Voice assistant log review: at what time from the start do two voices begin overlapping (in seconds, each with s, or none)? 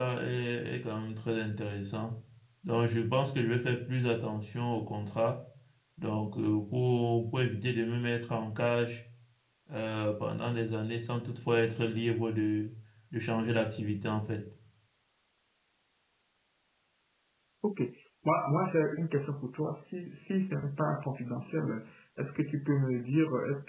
none